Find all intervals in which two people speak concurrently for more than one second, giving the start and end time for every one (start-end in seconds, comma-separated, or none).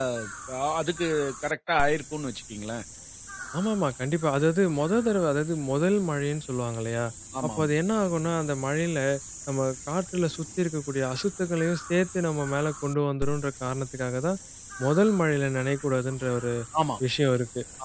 none